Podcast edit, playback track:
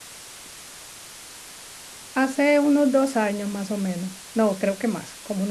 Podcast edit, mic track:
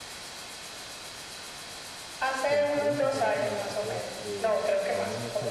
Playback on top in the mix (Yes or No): Yes